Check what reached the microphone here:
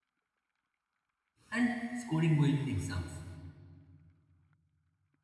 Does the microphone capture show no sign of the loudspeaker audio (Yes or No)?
Yes